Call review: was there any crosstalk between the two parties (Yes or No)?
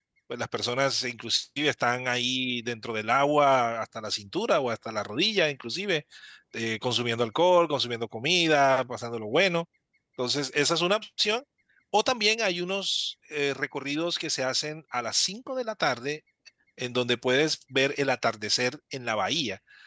No